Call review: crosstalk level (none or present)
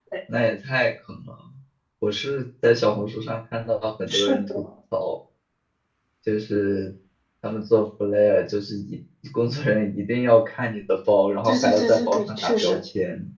present